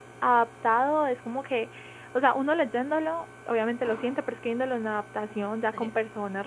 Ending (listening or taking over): listening